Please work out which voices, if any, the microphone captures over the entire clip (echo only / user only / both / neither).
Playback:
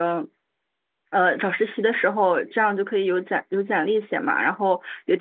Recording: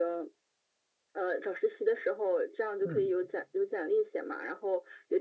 both